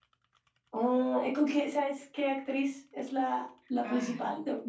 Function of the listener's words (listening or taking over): taking over